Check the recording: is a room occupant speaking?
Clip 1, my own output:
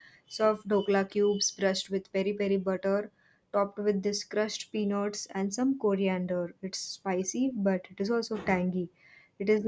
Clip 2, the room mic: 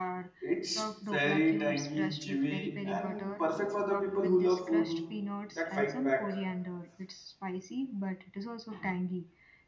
Yes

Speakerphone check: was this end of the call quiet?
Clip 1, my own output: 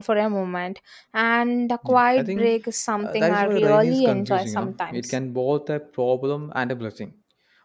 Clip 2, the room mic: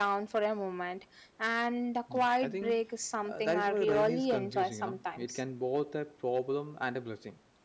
Yes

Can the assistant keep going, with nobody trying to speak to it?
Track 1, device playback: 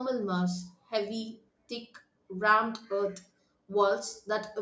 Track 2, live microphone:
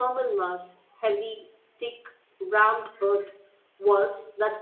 Yes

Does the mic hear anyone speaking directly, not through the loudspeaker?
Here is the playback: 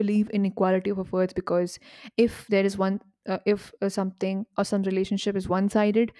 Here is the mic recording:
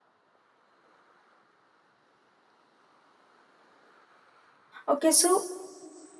Yes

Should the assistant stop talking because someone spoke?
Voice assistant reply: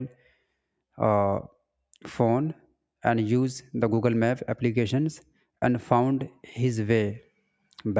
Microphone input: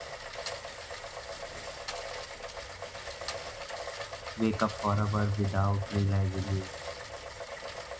Yes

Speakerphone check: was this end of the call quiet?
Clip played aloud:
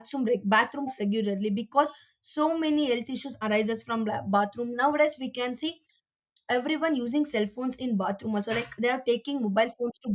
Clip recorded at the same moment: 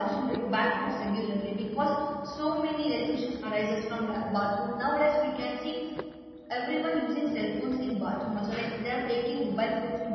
Yes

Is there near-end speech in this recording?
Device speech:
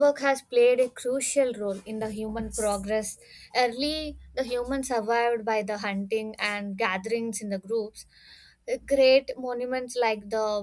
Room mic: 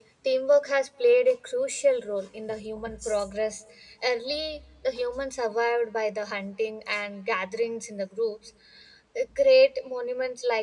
No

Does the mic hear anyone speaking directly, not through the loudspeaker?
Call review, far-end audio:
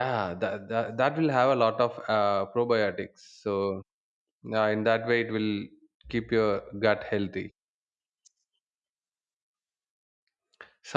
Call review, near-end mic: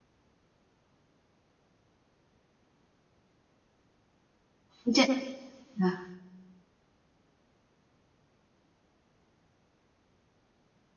Yes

